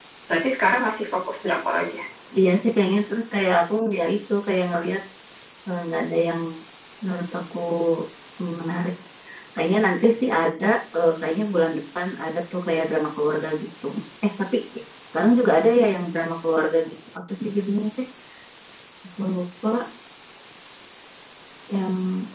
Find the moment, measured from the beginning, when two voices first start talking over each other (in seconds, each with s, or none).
none